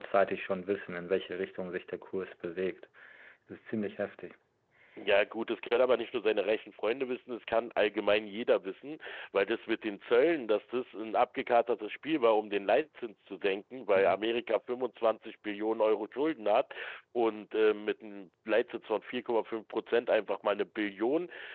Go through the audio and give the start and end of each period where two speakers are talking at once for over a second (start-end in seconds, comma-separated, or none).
none